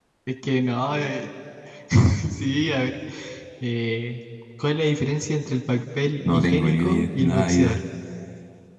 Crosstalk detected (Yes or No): Yes